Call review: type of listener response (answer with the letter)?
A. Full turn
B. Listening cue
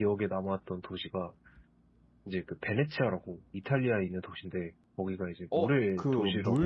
A